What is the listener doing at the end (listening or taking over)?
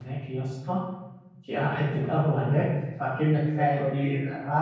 listening